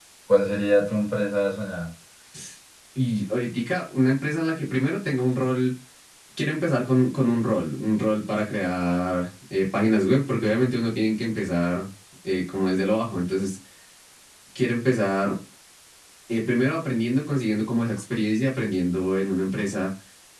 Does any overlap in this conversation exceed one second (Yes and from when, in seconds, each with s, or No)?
No